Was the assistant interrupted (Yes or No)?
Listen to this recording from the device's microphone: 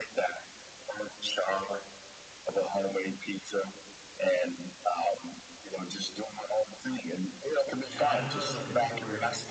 Yes